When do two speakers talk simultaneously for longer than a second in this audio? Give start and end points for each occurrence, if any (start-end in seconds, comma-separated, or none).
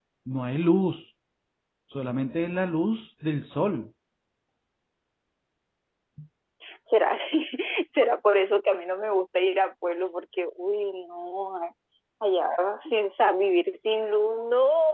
none